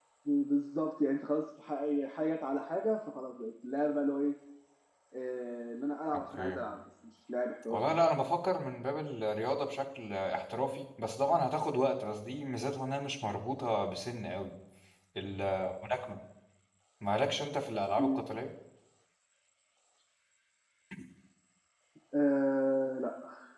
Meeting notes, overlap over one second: none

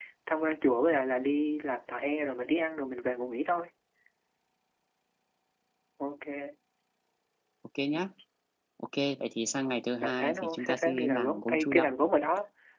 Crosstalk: present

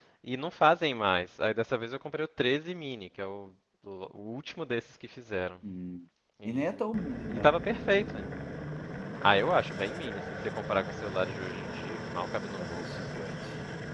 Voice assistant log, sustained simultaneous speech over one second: none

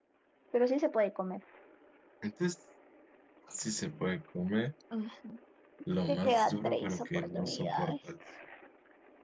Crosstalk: present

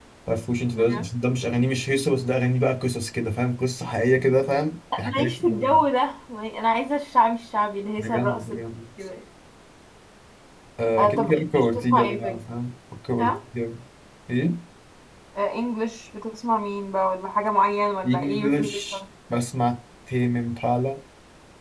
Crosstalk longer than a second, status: present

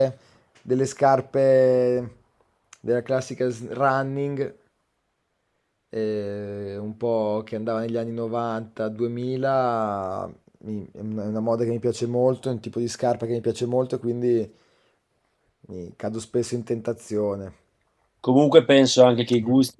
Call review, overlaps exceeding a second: none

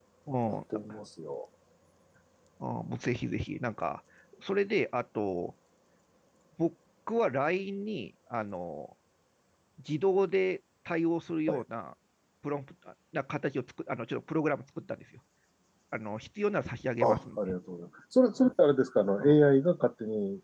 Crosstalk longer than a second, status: none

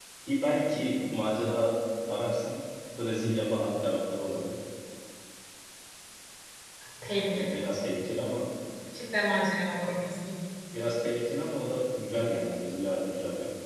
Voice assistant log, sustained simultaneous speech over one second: none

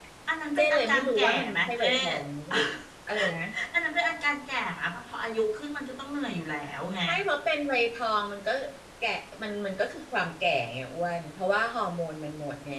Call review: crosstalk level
present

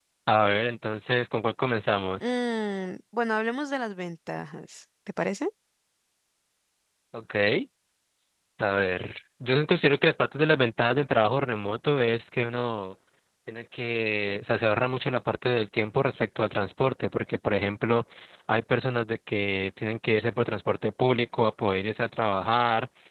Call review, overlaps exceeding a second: none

